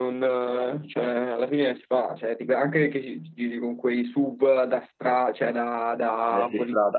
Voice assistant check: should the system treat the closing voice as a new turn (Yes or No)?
Yes